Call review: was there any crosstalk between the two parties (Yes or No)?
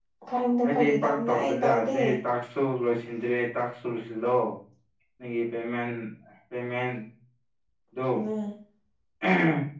Yes